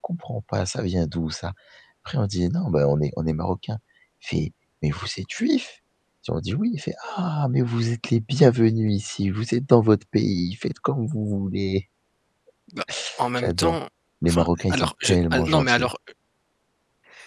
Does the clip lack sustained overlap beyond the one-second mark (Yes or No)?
No